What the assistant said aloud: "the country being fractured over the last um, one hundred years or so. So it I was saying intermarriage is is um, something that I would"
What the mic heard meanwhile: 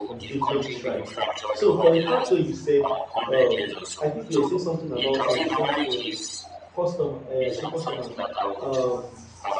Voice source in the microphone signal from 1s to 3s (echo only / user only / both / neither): both